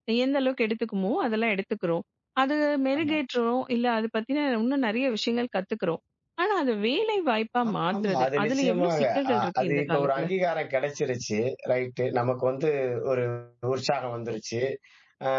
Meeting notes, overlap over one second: present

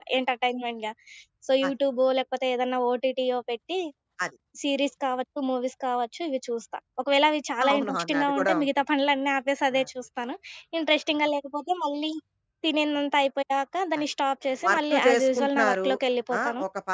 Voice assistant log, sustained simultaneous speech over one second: present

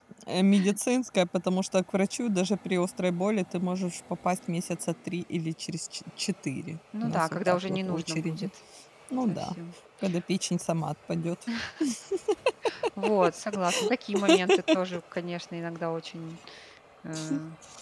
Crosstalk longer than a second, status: present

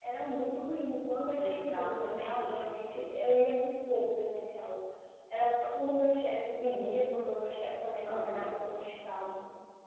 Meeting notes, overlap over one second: present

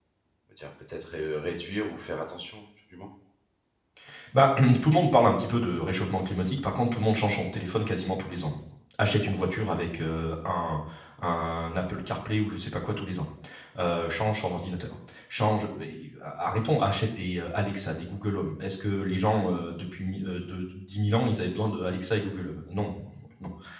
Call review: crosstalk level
none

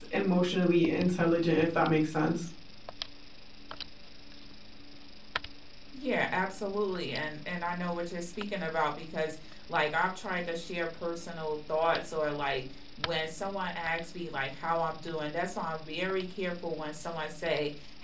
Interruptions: none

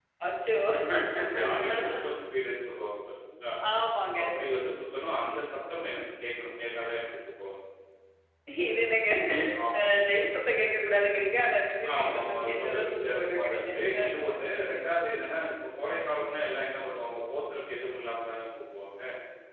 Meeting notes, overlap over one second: present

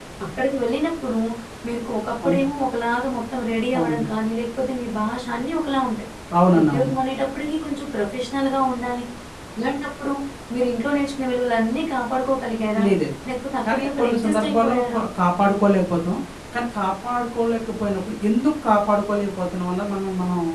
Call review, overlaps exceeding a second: present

